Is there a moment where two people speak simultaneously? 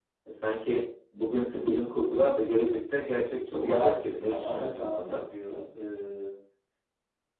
Yes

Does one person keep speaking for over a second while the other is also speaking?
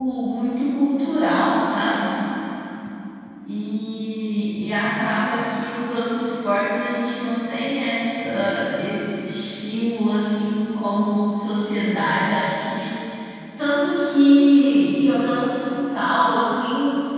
No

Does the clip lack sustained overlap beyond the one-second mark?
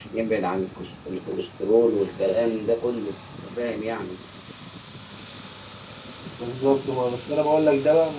Yes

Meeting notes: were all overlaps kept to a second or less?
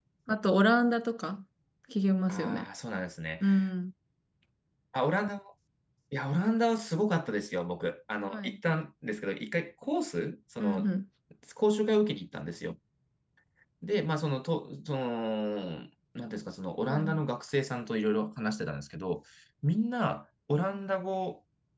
Yes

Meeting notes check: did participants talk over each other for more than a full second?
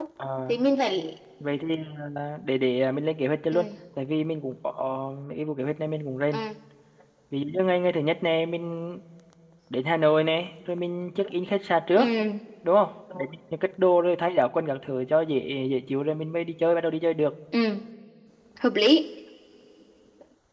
No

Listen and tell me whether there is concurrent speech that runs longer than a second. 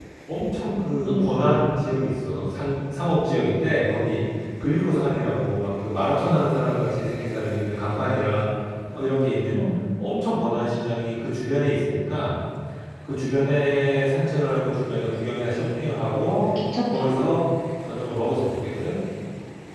No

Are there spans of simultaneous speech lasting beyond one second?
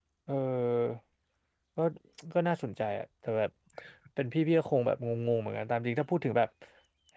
No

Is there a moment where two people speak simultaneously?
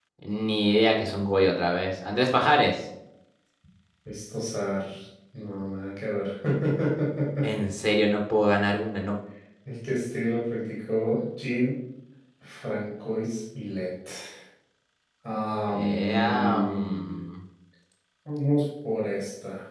Yes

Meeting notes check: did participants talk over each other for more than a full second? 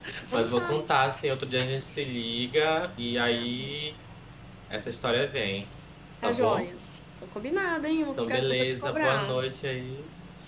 Yes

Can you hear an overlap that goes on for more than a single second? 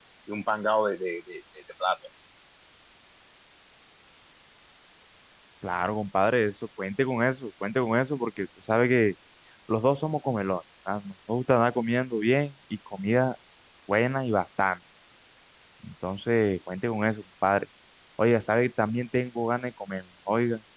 No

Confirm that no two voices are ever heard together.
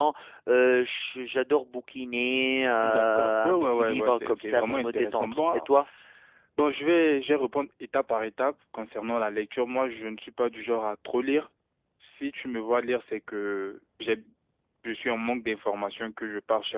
No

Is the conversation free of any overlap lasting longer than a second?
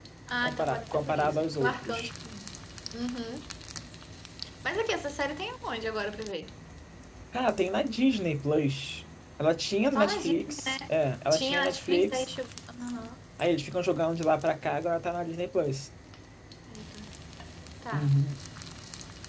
No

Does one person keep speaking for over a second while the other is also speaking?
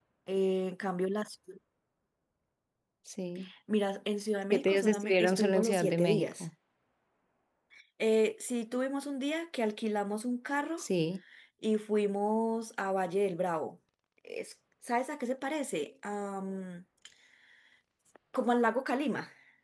Yes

